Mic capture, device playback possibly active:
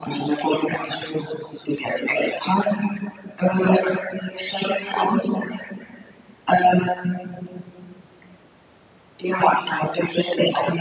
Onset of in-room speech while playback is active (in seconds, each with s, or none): none